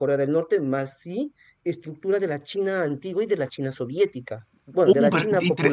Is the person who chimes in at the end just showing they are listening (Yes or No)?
No